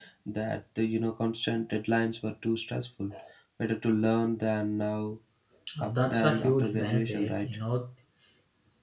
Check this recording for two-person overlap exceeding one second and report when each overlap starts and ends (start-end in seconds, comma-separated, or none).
5.8-7.6